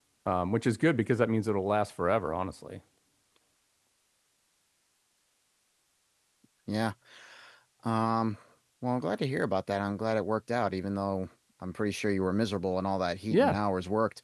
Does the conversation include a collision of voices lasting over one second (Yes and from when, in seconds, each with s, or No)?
No